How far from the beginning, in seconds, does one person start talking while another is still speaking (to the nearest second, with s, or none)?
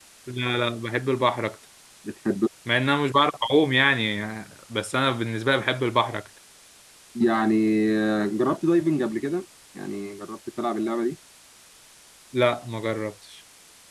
none